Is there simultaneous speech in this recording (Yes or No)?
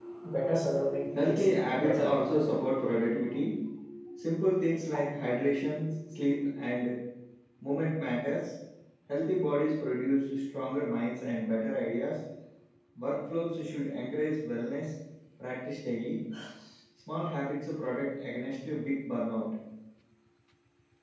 Yes